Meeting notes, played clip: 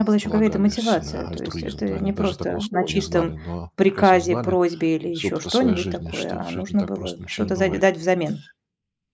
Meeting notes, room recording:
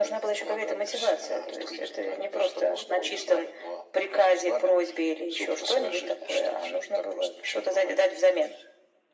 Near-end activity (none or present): none